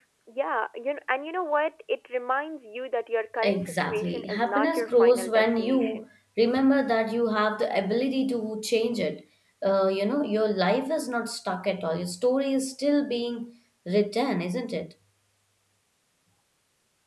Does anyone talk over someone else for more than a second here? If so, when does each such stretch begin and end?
3.4-6.0

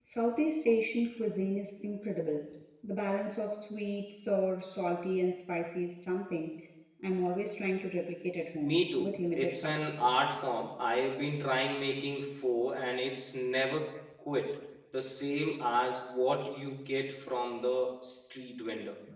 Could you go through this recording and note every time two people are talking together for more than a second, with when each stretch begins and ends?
8.6-10.1

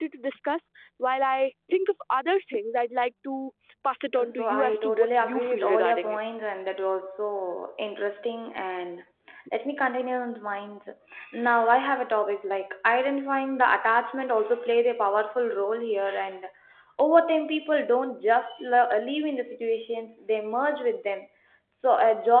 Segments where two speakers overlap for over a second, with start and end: 4.2-6.2

